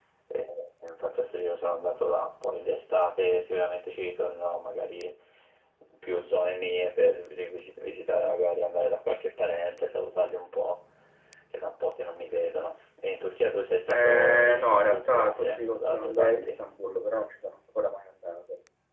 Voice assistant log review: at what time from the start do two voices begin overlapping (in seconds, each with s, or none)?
13.9 s